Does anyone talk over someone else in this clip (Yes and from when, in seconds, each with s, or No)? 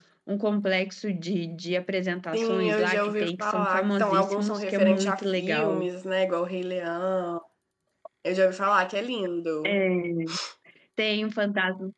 Yes, from 2.3 s